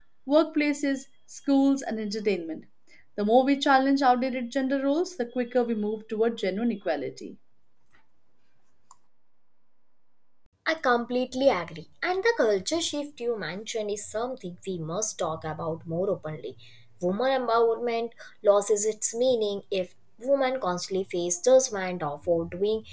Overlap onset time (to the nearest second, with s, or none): none